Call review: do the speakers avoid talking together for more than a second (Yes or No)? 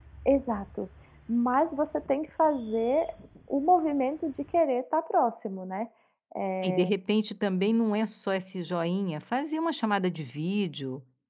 Yes